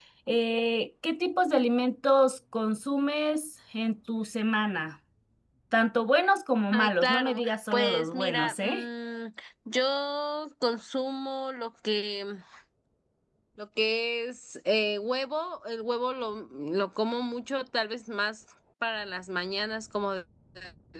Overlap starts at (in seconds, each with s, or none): 6.7 s